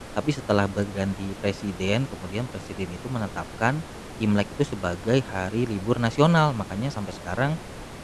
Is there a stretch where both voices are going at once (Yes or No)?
No